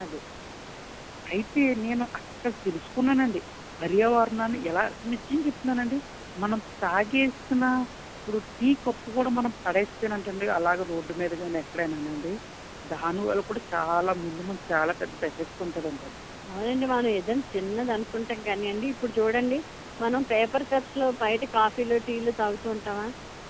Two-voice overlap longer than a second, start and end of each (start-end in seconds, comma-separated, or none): none